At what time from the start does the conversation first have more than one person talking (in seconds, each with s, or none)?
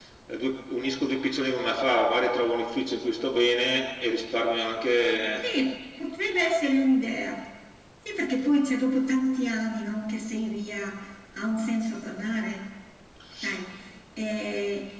none